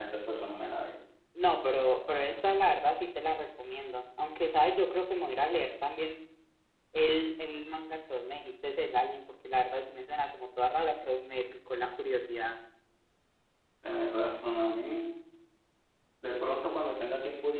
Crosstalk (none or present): none